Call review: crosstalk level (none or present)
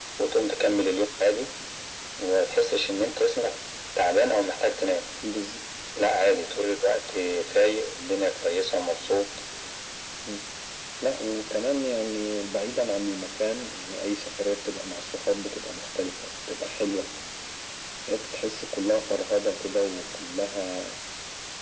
none